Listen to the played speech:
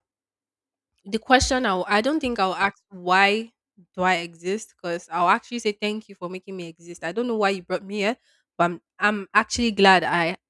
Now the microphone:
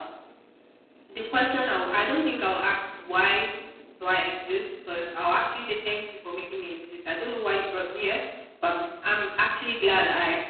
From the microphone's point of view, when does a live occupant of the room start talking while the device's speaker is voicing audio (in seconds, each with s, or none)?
none